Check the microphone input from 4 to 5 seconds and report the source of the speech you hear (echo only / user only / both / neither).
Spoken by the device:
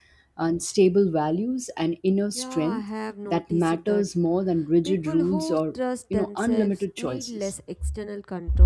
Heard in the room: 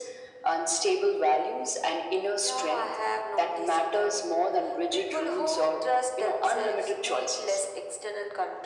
echo only